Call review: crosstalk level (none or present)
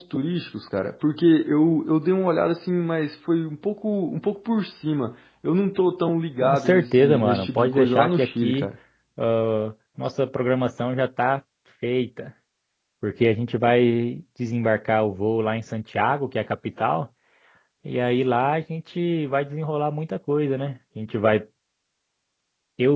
present